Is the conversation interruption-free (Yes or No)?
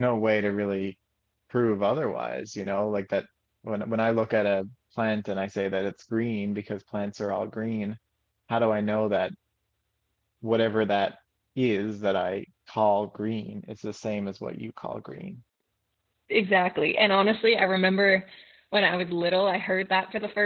Yes